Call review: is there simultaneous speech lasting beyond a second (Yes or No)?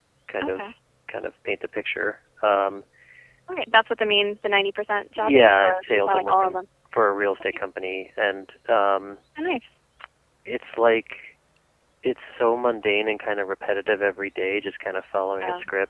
Yes